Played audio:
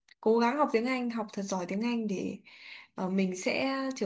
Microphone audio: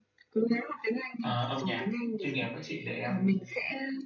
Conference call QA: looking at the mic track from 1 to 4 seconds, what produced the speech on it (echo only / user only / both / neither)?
both